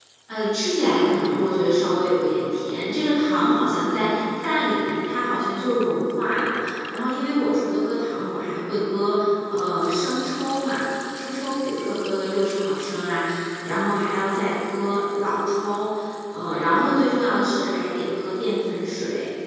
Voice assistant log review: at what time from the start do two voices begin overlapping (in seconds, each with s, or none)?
none